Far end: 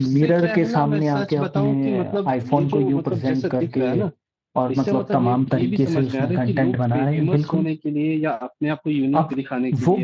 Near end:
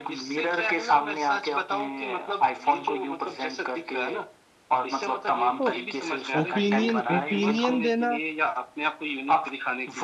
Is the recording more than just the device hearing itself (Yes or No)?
Yes